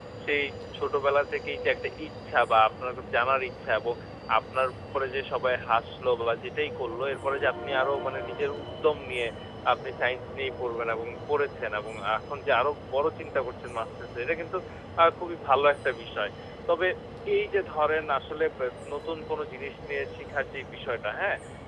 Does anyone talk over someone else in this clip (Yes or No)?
No